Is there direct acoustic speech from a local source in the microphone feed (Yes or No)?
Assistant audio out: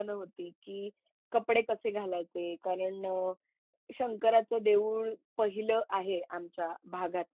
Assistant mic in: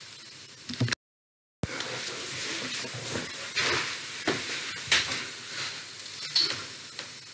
No